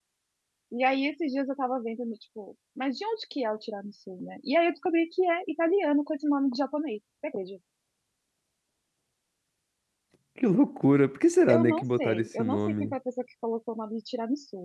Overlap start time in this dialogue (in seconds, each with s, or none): 11.5 s